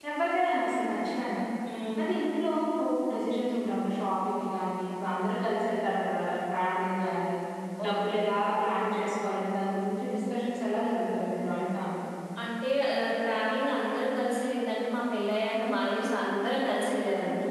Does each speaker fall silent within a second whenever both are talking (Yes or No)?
Yes